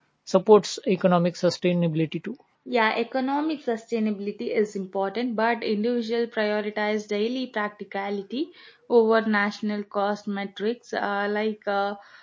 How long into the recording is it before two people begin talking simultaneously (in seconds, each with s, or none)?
none